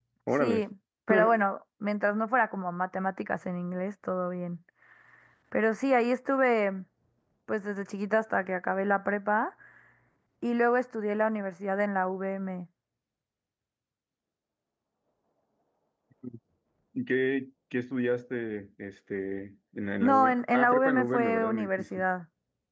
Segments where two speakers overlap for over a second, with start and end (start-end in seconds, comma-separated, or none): 20.0-22.0